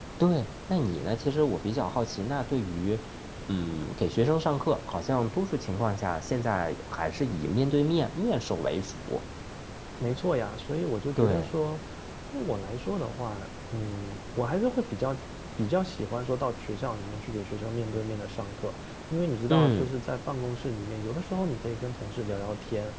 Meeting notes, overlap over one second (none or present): none